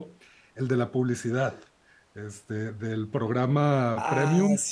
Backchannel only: No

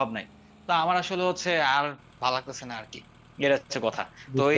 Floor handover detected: No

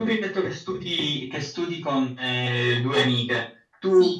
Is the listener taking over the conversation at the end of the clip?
No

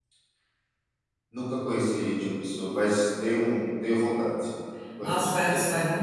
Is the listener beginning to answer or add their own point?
Yes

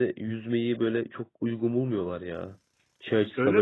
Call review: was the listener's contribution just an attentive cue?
Yes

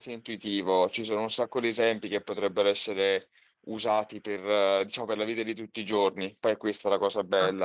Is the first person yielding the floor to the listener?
Yes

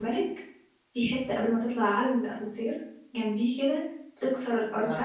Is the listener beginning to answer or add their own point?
No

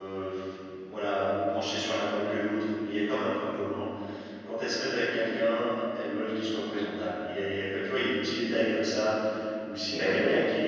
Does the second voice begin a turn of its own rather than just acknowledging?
No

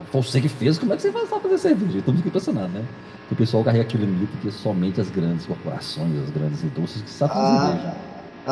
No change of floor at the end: No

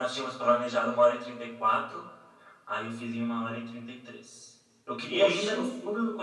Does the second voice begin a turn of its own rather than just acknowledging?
No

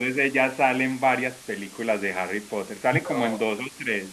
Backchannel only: Yes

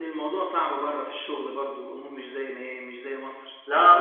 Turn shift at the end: Yes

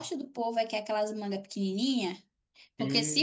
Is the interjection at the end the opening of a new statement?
No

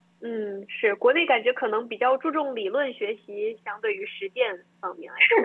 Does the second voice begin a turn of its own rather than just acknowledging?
Yes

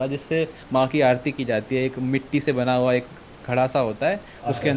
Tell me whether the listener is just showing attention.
Yes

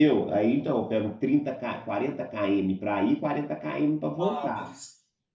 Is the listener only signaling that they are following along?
No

